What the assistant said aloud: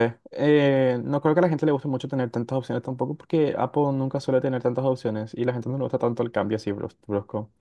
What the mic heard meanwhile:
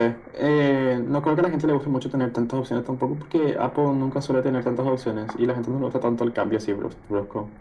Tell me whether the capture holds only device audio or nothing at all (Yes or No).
Yes